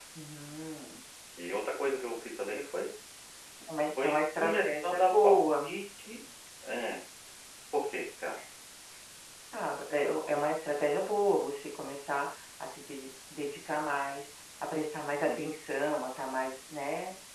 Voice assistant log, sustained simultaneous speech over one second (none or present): present